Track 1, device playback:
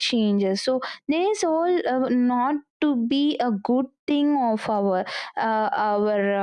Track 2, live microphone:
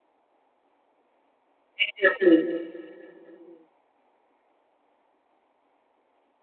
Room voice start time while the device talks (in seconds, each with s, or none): 1.8 s